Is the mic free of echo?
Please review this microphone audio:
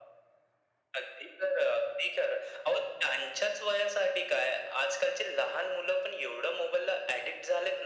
No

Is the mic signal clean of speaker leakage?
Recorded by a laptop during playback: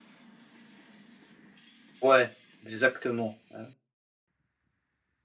Yes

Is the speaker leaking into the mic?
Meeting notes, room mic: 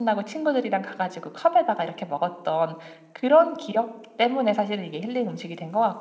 No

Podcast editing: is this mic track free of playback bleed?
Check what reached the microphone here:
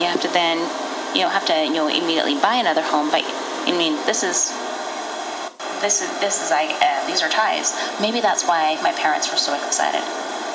No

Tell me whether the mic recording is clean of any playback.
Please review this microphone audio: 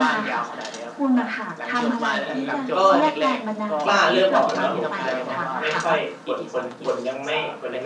No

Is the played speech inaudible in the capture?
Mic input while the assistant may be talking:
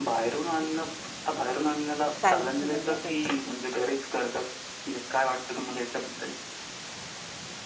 No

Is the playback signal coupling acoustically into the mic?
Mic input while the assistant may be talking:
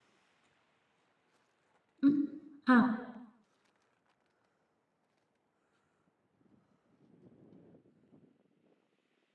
No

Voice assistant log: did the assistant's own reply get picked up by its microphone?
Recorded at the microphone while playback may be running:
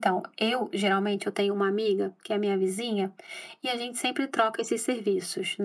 Yes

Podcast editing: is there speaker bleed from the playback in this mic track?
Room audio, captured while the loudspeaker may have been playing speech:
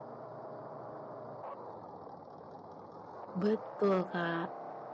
No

